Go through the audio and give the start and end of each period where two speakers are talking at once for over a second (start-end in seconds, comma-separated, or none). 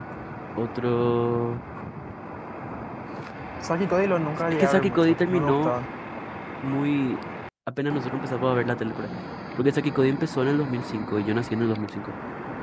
4.5-5.7